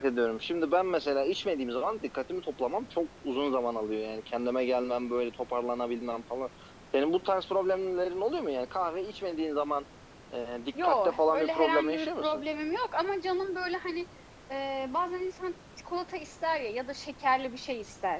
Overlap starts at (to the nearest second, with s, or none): 11 s